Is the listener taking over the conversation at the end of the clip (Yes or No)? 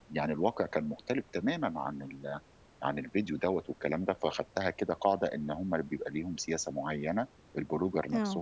No